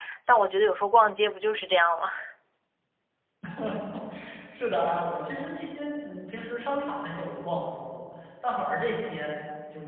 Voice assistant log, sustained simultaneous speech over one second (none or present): none